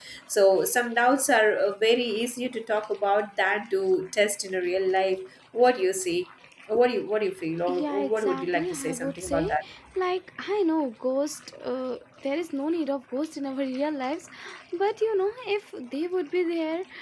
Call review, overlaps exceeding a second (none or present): present